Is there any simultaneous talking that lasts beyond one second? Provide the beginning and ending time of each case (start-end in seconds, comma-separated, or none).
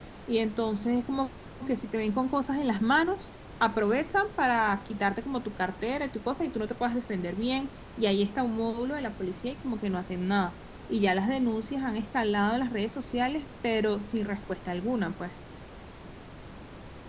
none